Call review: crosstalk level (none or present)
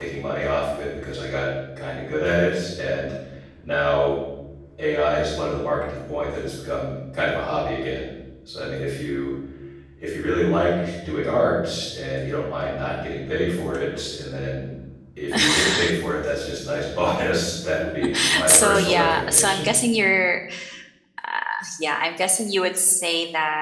present